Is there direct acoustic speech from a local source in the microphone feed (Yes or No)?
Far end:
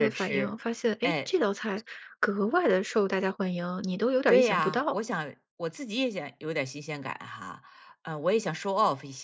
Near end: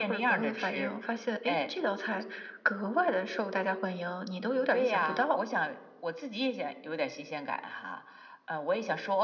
No